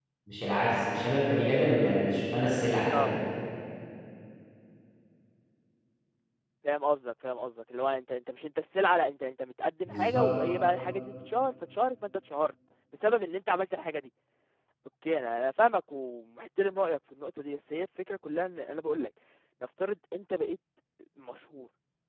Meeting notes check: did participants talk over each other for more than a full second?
No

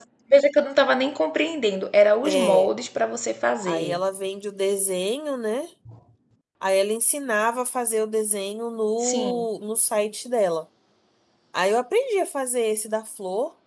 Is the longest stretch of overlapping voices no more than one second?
Yes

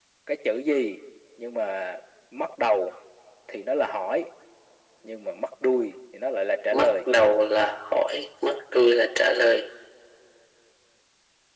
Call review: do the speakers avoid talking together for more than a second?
Yes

